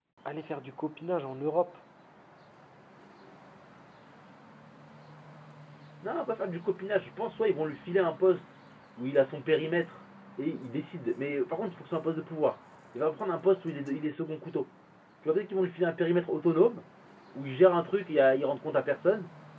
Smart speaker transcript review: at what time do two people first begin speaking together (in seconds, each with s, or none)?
none